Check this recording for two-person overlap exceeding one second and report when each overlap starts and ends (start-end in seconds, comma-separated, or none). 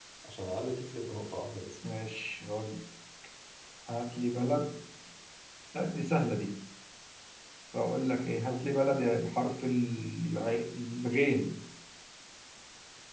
none